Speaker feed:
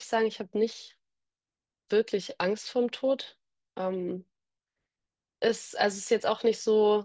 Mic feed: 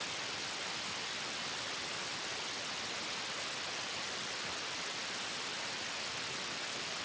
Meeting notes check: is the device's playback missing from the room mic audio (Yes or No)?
Yes